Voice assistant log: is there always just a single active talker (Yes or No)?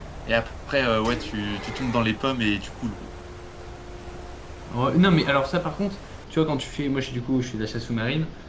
Yes